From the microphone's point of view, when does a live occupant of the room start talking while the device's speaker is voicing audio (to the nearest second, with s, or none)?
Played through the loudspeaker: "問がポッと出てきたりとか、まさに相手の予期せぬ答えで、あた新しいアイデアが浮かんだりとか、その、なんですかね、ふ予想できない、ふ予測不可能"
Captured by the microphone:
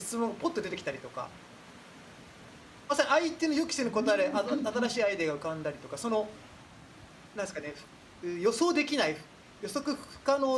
4 s